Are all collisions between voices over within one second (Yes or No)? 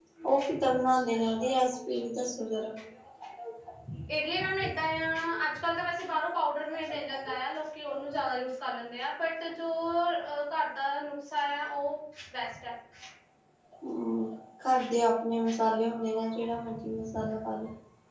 Yes